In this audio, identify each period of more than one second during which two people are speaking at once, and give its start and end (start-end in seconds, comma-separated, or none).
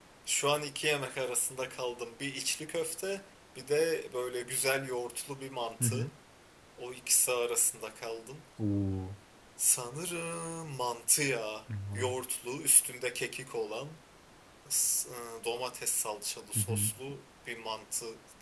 none